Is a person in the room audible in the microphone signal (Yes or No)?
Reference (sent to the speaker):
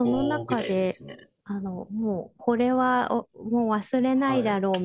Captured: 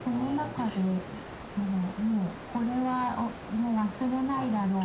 No